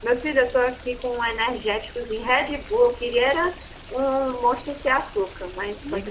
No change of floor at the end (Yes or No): No